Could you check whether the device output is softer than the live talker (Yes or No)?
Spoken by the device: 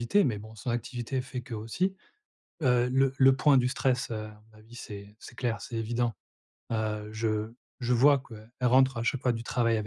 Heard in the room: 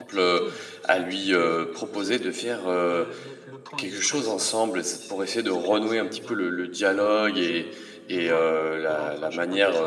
Yes